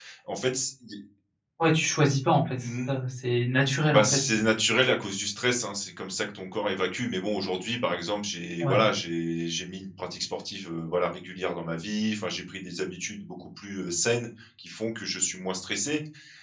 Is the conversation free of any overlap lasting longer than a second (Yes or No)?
Yes